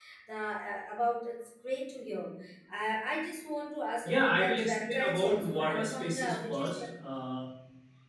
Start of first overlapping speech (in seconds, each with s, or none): 4.0 s